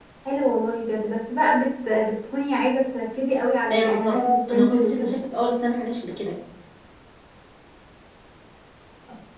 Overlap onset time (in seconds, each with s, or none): 3.7 s